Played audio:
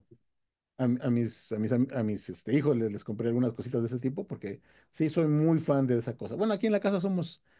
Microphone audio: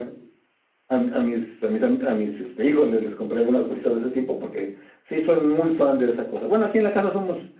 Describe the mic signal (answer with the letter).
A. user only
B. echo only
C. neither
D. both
B